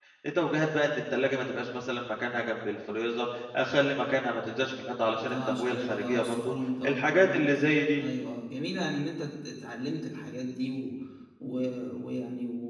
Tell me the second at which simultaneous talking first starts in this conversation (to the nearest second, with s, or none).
5 s